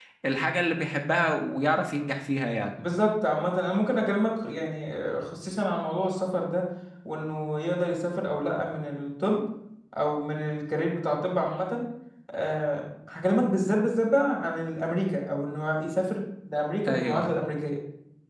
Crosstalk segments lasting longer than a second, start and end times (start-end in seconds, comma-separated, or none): none